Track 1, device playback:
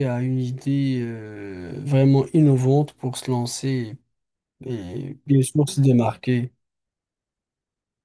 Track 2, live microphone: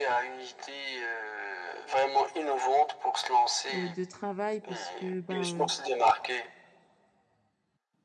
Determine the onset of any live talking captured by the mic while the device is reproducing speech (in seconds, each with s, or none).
3.7 s